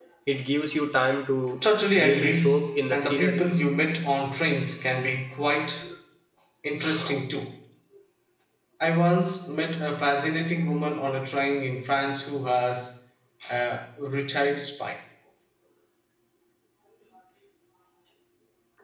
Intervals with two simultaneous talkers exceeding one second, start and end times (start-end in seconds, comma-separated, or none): 2.0-3.5